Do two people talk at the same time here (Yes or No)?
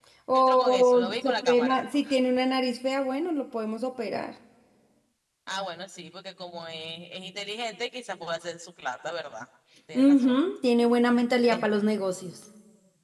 Yes